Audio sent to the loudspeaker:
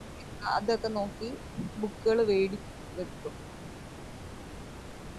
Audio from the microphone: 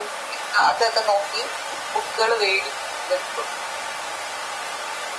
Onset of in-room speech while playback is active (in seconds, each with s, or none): none